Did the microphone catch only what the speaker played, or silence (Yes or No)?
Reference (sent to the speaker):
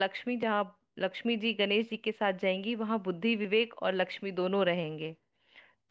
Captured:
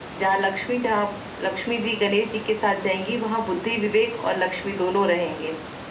Yes